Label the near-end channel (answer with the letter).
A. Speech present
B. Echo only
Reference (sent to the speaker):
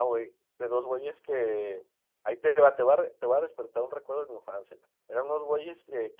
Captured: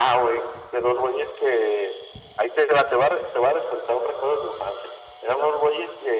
B